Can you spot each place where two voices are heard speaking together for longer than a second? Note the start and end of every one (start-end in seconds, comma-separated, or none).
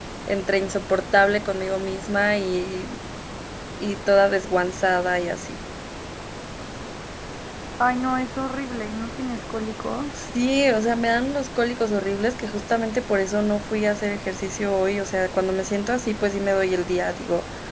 none